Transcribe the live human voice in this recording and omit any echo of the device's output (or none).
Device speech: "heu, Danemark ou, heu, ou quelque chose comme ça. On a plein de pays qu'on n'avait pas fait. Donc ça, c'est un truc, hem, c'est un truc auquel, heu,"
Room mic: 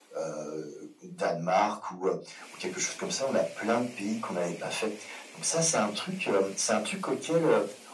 none